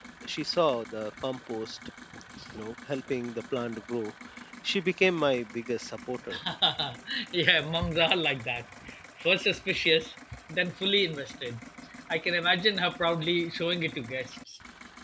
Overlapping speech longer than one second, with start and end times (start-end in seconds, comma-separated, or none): none